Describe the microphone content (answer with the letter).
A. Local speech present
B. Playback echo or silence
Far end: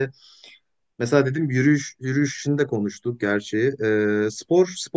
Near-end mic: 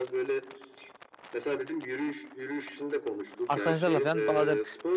A